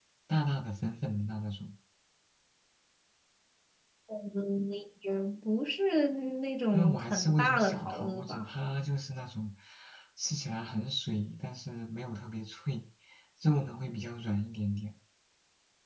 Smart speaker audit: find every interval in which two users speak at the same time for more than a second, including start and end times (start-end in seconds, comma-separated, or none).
6.7-8.4